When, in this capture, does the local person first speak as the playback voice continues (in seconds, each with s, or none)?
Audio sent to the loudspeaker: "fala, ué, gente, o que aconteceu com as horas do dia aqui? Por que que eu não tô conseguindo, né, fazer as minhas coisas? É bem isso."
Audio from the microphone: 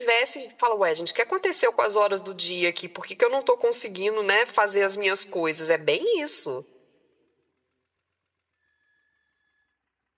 none